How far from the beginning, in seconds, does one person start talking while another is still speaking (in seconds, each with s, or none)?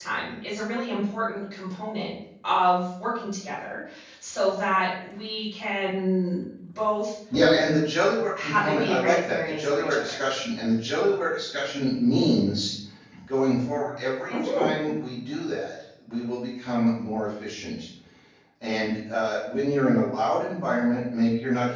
8.4 s